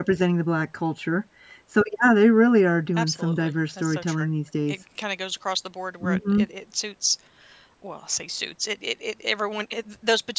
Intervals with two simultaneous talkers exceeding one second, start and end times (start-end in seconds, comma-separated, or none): 3.0-4.3